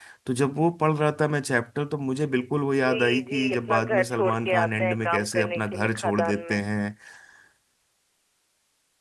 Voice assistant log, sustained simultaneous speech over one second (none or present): present